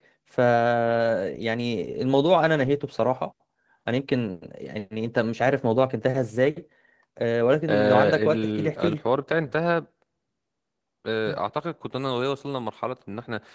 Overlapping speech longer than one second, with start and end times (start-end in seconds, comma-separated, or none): 7.7-9.0